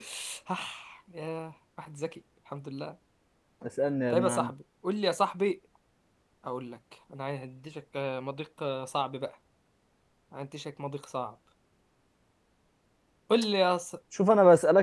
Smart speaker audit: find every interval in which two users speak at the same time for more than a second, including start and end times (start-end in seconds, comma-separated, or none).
none